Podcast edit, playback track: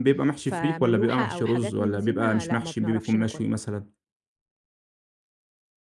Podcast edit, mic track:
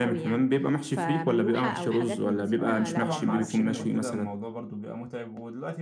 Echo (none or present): present